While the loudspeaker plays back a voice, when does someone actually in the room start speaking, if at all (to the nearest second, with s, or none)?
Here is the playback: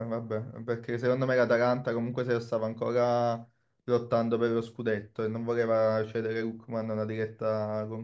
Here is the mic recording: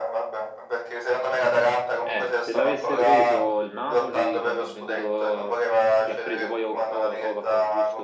2 s